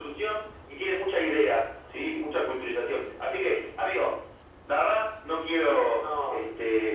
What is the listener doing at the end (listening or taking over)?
listening